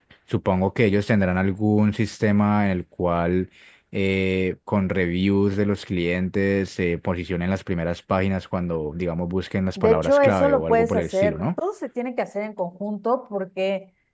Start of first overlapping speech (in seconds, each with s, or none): 9.8 s